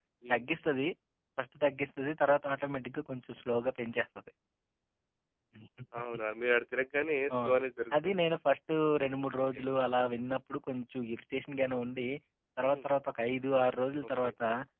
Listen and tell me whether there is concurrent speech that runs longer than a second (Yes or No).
No